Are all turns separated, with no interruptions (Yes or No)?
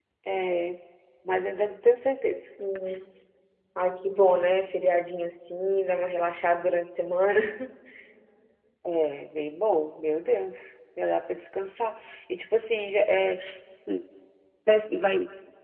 Yes